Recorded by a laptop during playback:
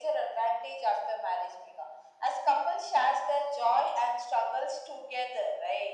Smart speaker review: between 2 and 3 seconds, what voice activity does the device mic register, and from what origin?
echo only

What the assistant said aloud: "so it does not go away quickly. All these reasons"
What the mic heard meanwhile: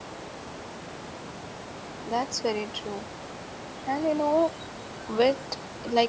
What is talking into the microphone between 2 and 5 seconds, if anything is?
user only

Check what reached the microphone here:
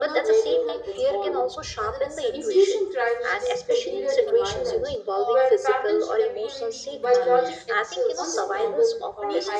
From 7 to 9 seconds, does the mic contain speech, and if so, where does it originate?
both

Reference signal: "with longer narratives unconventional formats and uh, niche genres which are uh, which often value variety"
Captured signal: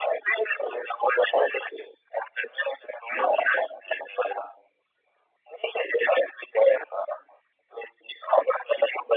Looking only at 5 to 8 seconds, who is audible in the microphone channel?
echo only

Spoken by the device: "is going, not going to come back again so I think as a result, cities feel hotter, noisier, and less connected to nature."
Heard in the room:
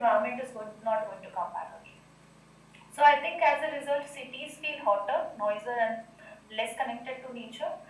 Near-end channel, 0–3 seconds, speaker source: echo only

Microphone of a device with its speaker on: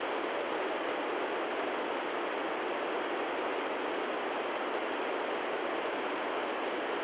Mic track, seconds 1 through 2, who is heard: neither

